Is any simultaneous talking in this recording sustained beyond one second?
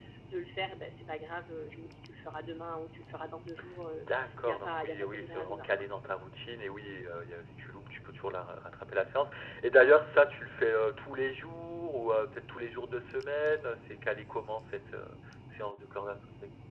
Yes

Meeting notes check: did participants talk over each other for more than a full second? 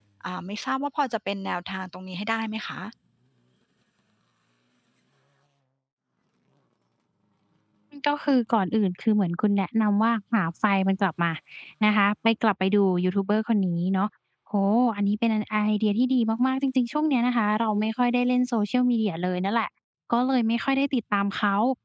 No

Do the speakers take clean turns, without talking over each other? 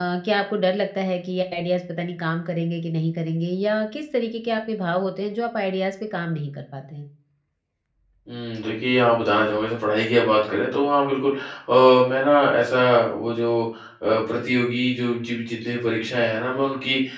Yes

